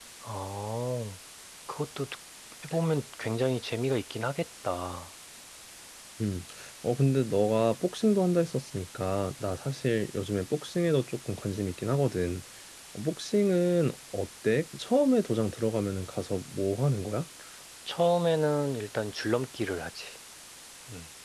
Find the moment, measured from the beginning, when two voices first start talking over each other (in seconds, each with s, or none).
none